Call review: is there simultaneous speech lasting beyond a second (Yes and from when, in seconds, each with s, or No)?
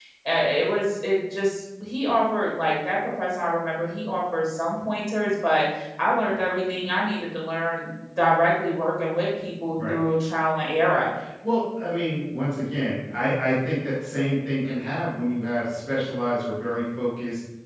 No